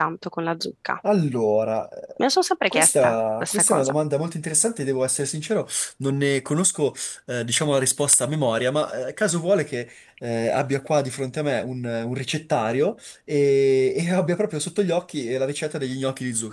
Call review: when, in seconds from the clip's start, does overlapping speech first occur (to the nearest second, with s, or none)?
3 s